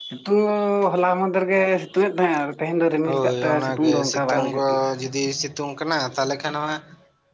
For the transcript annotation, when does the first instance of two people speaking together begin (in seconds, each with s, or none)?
3.1 s